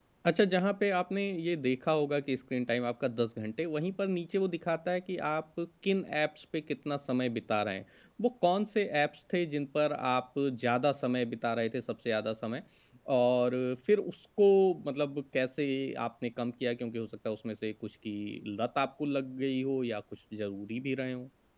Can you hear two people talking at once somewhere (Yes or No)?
No